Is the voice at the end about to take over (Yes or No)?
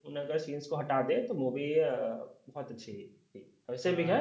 No